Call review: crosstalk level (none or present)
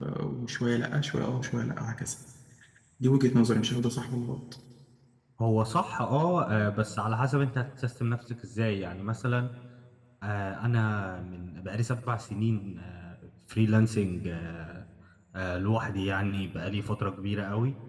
none